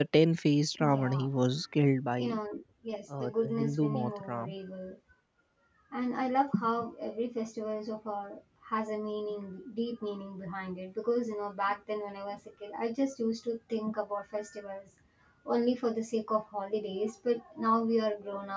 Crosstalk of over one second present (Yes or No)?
Yes